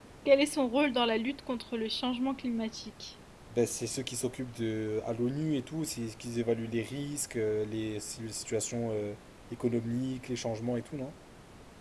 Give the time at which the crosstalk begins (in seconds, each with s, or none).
none